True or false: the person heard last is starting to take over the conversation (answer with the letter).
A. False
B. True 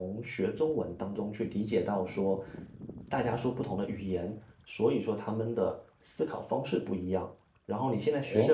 B